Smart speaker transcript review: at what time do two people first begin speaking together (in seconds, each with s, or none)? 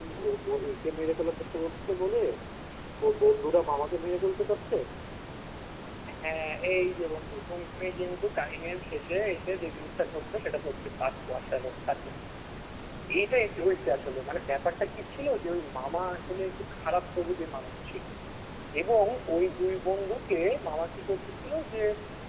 none